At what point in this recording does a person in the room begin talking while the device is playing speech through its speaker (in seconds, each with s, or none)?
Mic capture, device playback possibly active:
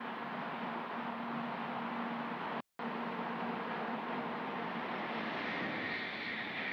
none